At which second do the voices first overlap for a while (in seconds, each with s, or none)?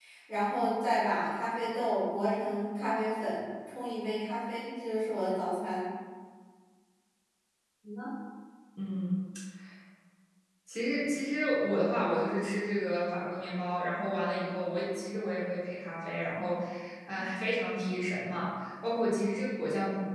none